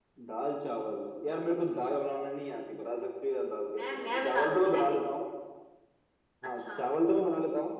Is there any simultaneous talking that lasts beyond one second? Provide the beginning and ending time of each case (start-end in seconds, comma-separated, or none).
3.8-5.0